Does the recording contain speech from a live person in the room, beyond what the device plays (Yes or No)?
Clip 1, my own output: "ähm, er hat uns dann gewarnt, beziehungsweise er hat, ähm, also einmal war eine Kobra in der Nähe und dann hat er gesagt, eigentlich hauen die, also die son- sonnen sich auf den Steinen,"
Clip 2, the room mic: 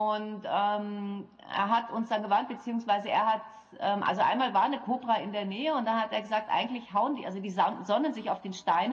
No